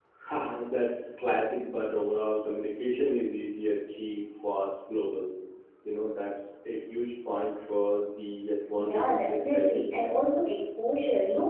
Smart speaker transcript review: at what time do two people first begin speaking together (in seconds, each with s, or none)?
8.8 s